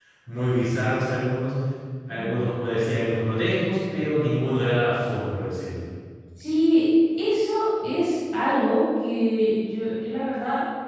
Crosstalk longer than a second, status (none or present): none